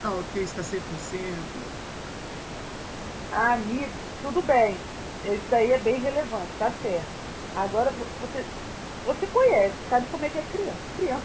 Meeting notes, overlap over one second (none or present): none